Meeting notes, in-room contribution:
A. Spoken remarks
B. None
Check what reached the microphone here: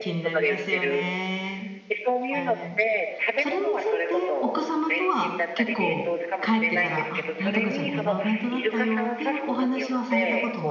A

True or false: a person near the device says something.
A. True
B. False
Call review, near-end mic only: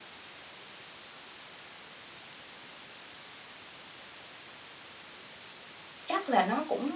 A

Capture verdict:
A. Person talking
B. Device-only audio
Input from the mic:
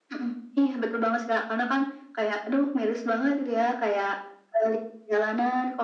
B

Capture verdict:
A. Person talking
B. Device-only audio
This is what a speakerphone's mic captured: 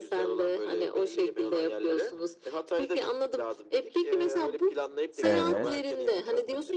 A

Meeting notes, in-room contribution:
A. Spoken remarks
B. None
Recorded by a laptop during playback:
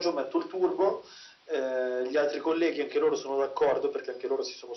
B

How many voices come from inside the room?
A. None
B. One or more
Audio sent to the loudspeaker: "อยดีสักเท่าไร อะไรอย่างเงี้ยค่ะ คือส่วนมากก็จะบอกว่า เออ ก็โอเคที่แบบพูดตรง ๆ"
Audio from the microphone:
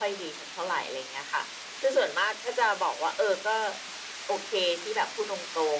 A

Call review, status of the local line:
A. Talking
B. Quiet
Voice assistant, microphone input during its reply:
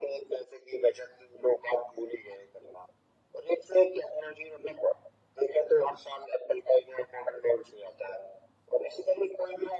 B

